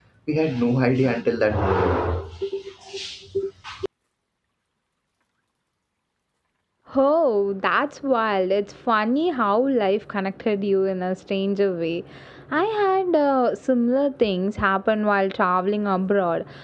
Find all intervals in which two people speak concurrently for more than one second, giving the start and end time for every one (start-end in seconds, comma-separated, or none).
none